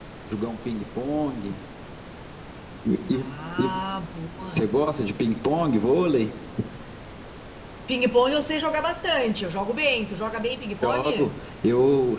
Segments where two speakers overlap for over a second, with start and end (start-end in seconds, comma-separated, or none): none